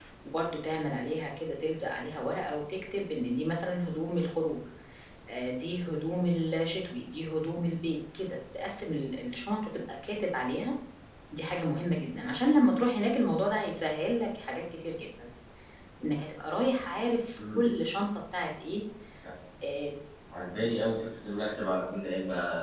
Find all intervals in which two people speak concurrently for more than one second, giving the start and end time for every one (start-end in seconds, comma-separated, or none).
none